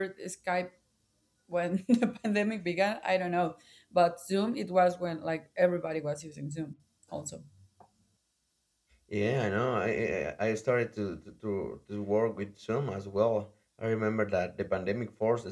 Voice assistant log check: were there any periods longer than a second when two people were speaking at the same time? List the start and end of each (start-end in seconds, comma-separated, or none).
none